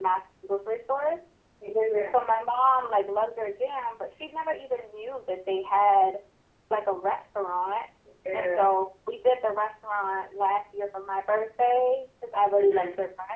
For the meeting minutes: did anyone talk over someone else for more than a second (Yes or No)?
No